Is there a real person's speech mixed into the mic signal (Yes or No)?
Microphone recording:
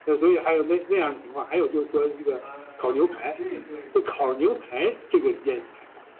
Yes